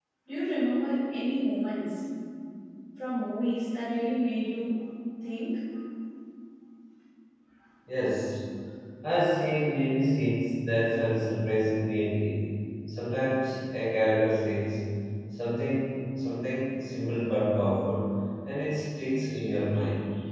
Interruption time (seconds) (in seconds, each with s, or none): none